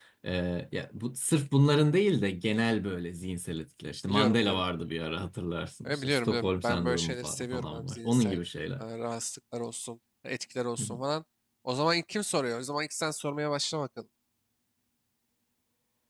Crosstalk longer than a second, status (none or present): present